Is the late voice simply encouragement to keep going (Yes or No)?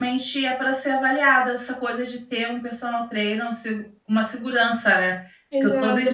No